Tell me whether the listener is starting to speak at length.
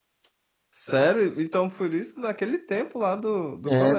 Yes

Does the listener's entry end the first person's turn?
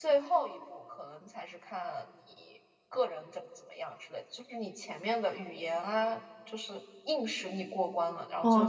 Yes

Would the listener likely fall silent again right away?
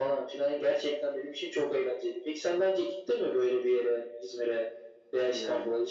Yes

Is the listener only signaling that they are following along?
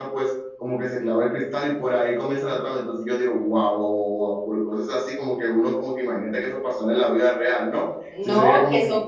No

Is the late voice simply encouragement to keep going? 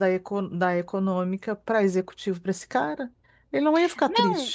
No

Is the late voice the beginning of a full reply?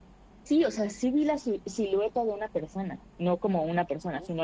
No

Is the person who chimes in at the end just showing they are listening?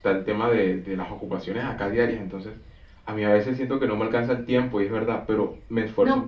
No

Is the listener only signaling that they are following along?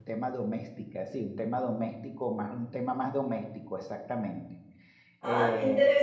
No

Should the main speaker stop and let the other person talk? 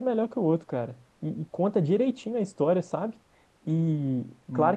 No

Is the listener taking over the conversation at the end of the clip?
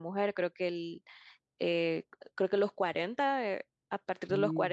No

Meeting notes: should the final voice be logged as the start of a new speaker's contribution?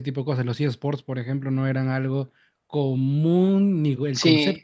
Yes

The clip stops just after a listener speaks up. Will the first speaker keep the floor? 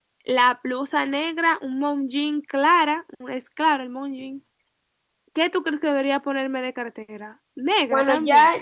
No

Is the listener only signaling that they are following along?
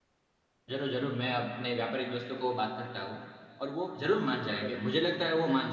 Yes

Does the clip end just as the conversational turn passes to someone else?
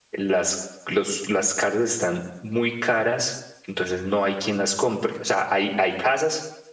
No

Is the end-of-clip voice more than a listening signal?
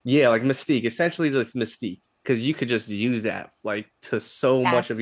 No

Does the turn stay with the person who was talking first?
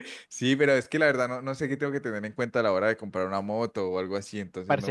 No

